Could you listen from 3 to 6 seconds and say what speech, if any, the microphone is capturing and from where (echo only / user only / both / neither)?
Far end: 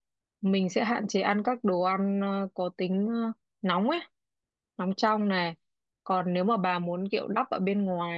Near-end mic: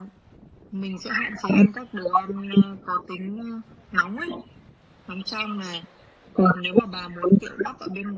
echo only